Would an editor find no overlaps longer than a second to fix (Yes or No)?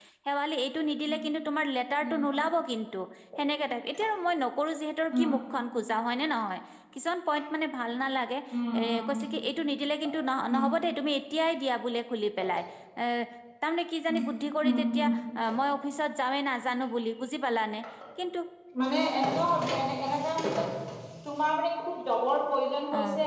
Yes